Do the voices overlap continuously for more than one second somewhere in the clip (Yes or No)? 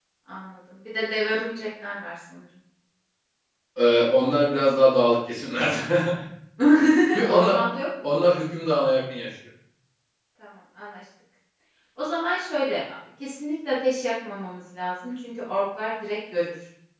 No